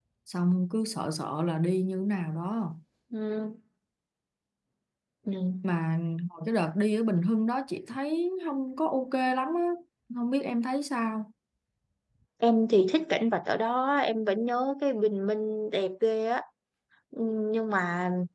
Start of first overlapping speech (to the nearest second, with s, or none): none